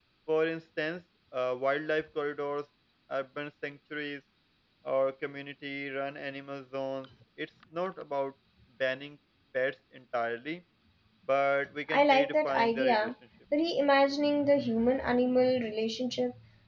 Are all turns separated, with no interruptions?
No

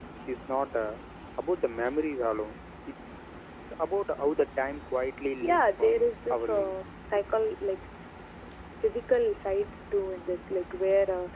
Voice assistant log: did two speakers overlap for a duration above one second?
Yes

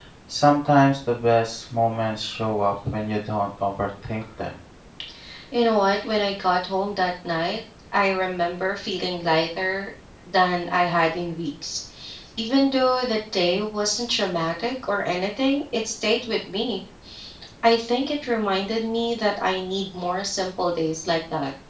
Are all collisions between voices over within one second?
Yes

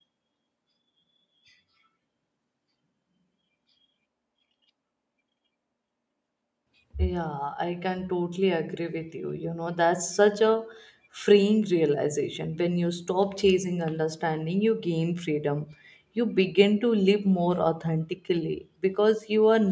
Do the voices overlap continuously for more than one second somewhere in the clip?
No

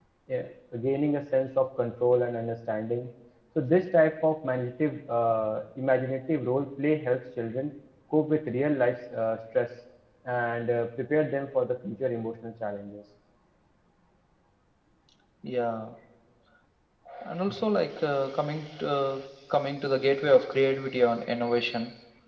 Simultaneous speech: No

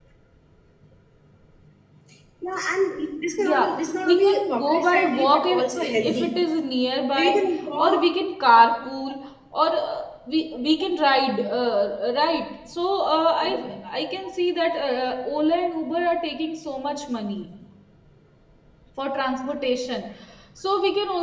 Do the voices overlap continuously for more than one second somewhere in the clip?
Yes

